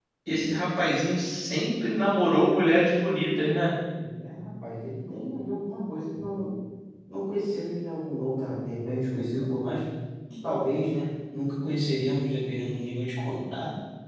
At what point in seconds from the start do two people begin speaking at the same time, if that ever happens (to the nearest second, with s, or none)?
none